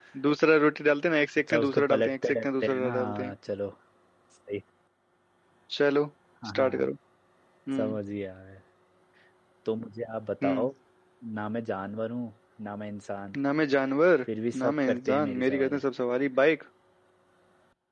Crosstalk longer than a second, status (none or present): present